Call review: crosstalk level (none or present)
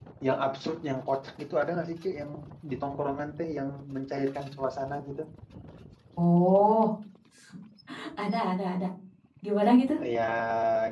none